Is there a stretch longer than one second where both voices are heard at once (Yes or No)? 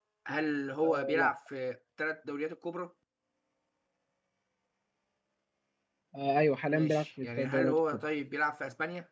Yes